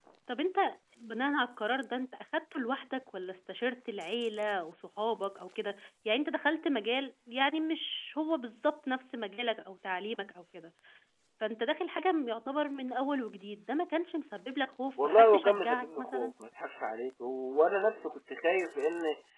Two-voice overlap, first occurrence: 15 s

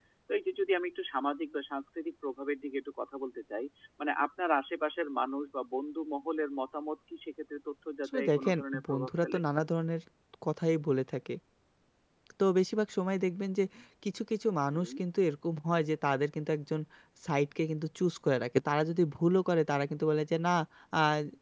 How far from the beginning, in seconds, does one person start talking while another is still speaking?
8 s

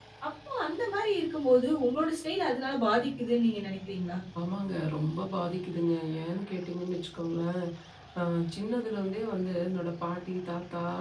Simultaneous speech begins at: none

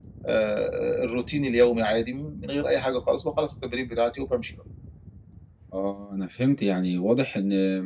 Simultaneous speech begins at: none

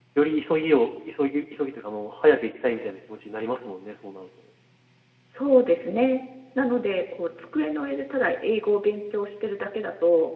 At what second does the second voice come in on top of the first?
none

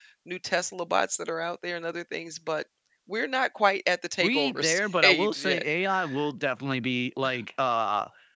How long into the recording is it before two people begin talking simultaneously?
4 s

